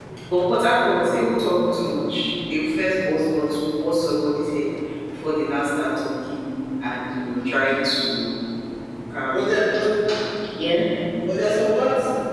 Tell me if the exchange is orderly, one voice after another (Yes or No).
Yes